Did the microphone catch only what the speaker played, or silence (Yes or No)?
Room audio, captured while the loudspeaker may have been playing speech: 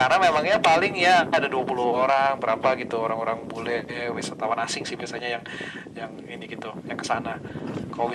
Yes